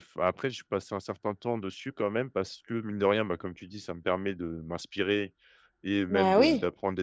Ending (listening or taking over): listening